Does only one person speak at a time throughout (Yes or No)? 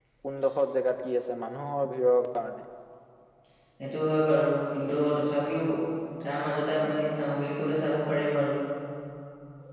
Yes